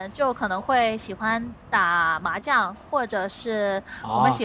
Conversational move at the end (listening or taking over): listening